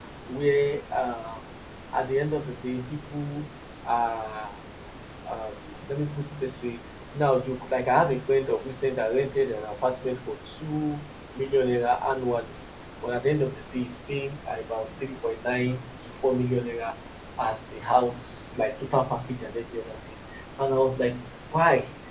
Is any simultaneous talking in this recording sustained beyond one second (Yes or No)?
No